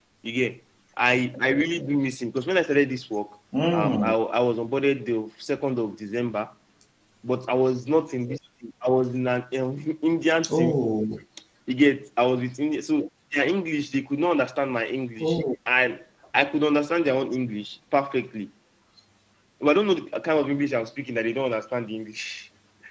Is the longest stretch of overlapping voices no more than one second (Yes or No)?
Yes